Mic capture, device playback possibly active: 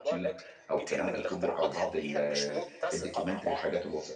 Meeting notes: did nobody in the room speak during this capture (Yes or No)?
No